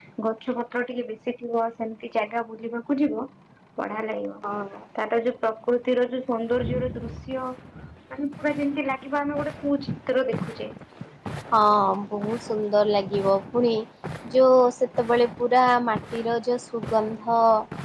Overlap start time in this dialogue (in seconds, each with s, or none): none